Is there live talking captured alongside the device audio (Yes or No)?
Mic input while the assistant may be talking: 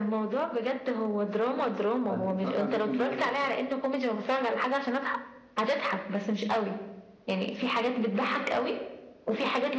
Yes